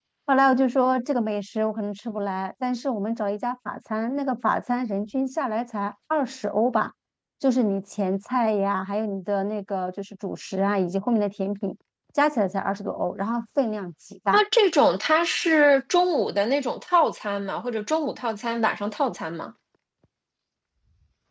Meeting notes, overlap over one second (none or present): none